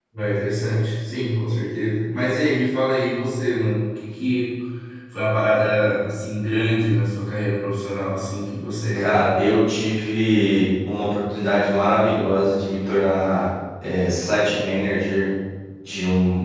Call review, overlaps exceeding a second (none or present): none